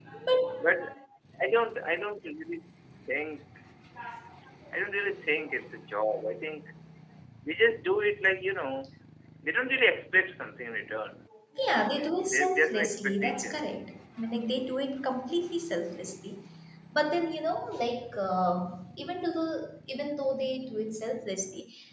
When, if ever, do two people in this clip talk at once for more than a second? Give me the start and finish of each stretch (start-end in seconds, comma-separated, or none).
12.3-13.6